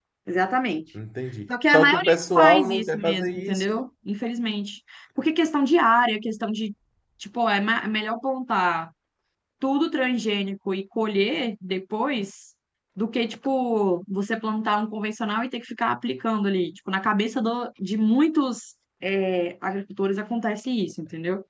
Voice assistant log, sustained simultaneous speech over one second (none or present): present